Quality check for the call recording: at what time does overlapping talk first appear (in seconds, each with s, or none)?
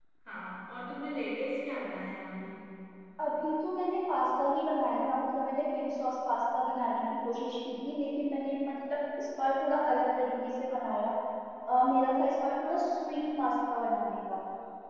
none